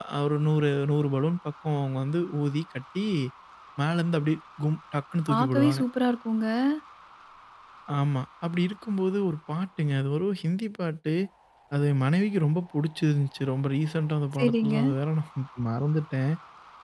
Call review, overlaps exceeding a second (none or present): none